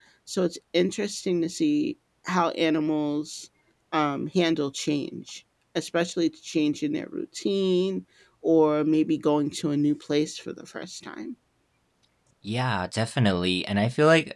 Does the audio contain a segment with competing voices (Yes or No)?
No